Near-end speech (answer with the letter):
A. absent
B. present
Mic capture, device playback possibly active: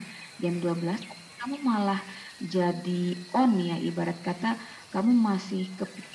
A